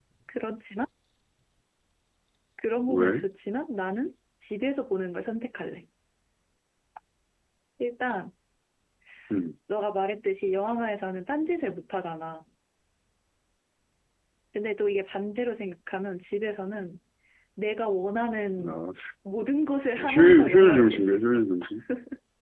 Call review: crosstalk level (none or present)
present